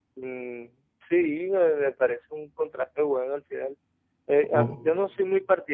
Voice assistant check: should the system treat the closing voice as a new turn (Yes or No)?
No